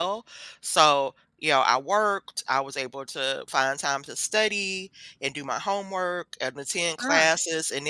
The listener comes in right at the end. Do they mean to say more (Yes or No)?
No